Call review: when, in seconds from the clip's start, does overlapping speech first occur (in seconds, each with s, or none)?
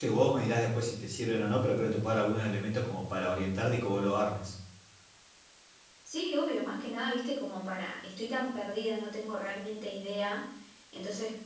none